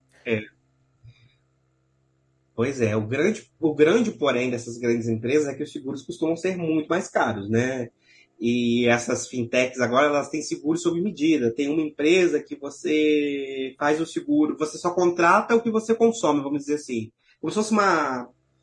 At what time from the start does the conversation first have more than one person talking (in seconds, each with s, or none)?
none